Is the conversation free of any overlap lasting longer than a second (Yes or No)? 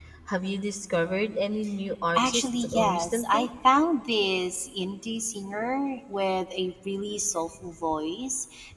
No